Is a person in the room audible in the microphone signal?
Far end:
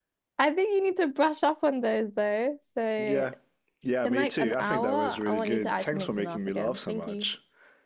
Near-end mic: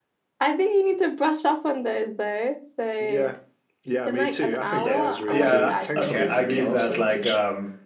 Yes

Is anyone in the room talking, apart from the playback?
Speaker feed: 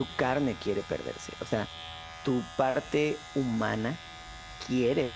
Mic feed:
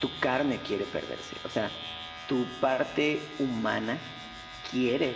No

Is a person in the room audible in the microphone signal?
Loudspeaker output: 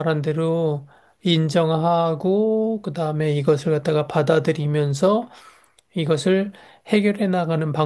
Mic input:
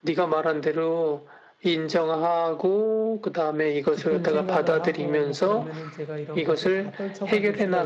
Yes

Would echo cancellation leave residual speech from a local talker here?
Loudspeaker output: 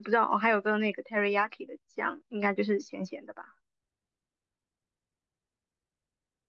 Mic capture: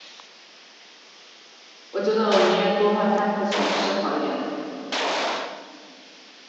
Yes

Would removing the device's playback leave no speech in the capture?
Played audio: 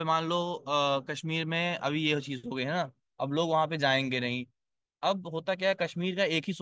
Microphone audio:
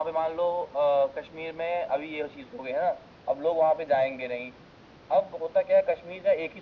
Yes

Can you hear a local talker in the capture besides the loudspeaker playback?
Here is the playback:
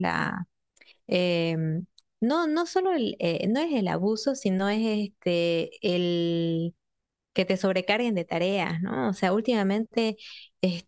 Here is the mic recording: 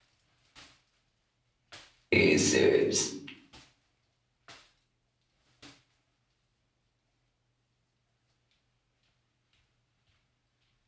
Yes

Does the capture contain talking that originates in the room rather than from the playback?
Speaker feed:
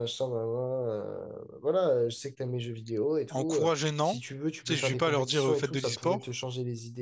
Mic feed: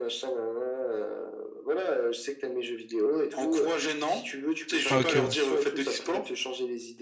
Yes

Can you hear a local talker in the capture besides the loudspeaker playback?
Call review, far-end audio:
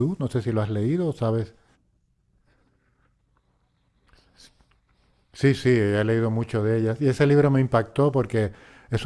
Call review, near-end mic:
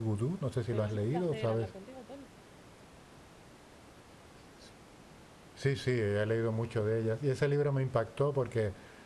Yes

